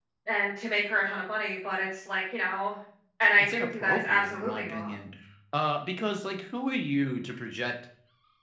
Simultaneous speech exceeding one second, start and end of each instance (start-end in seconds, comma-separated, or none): 3.4-4.9